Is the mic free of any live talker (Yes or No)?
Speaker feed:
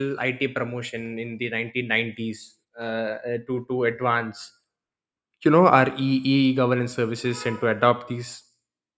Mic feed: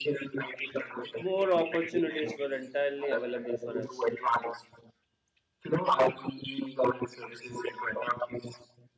No